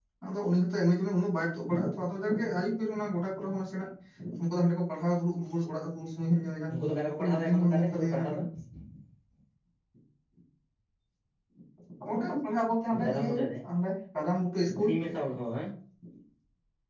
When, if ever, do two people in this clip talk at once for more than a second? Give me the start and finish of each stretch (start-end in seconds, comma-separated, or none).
6.7-8.4